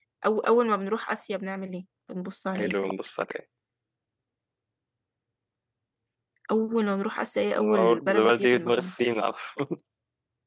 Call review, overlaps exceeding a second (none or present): present